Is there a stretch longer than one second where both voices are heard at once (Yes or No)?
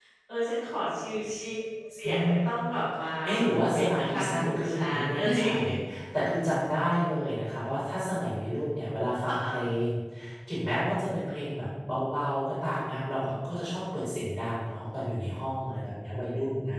Yes